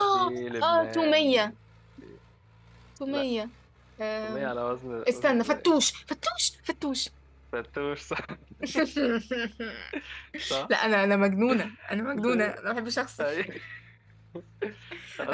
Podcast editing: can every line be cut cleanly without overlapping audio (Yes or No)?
No